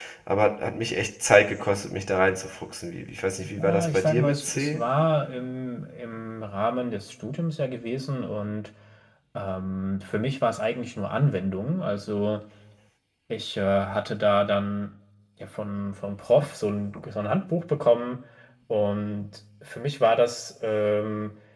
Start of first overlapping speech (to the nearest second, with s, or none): 3 s